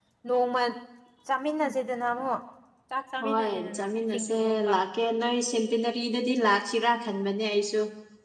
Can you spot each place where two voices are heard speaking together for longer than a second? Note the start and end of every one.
3.2-4.8

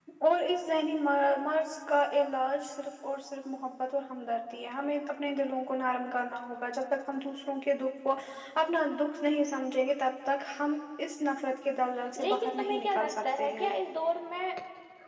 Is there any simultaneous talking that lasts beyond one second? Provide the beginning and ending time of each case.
12.2-13.7

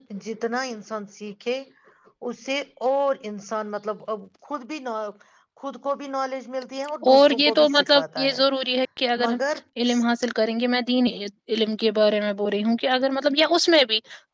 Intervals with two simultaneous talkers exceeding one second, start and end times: 7.1-8.4

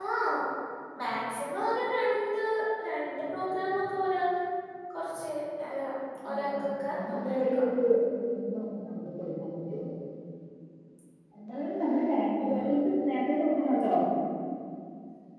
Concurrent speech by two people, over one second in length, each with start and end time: 6.3-7.7

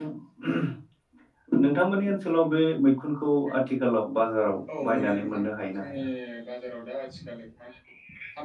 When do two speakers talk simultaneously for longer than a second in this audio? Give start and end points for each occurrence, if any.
4.8-6.0

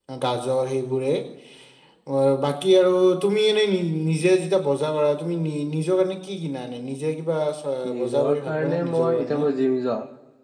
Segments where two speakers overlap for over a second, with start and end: 8.0-9.4

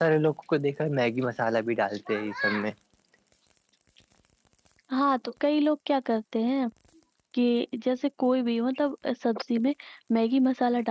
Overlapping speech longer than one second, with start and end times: none

